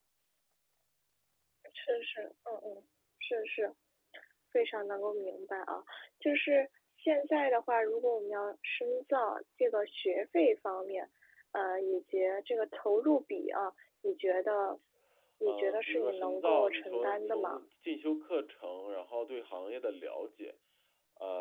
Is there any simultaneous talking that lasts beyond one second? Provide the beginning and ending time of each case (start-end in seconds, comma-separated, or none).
15.5-17.6